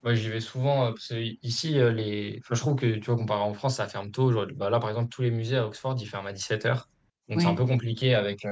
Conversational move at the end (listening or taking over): listening